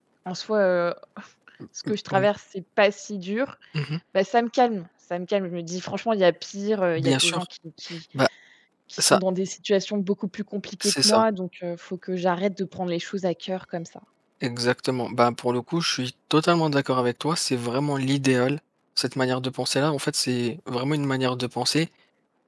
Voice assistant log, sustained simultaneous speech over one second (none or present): none